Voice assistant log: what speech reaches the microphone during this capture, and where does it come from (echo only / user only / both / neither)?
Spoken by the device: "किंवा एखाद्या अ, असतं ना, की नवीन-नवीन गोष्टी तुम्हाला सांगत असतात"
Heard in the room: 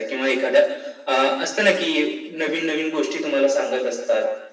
echo only